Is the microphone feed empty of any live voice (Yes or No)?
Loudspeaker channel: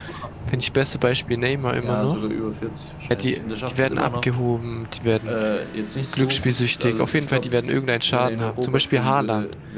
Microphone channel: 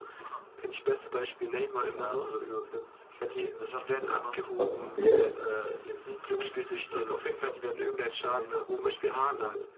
No